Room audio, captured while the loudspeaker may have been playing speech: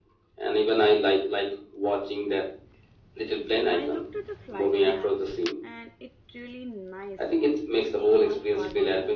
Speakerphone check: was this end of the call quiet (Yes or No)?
No